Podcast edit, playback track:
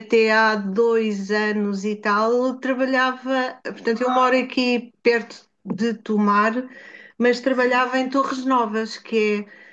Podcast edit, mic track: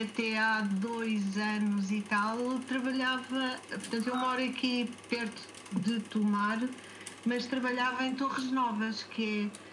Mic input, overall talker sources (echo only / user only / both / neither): echo only